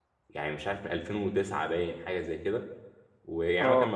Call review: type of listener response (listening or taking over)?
listening